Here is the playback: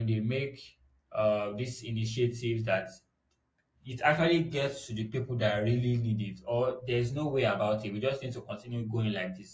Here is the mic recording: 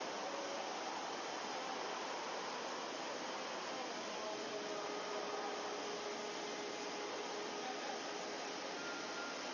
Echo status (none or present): none